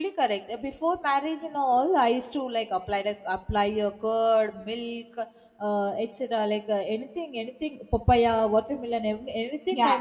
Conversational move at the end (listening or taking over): taking over